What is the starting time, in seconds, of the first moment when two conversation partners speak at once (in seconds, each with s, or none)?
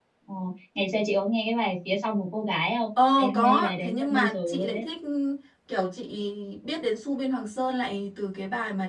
3.0 s